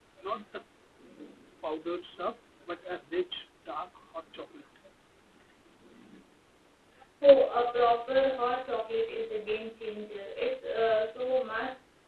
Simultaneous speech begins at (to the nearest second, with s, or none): none